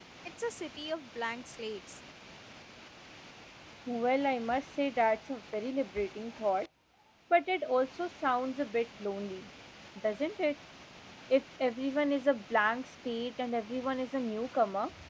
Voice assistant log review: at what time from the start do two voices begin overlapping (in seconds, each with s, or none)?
none